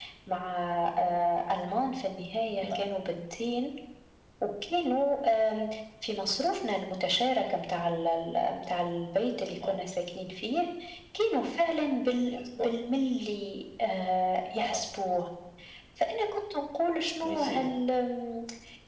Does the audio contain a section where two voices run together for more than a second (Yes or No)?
No